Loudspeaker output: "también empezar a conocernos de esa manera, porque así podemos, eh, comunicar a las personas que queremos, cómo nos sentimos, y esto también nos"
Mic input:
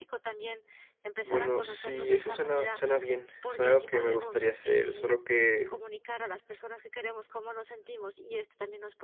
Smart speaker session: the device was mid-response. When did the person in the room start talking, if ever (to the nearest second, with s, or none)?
1 s